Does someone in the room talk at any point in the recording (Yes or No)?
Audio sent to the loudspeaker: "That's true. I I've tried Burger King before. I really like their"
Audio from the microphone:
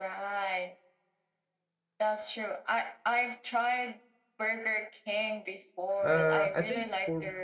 Yes